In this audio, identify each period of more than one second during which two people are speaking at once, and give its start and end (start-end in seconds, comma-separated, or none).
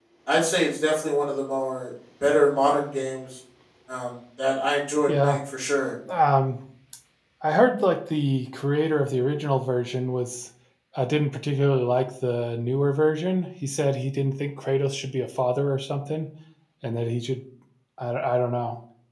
none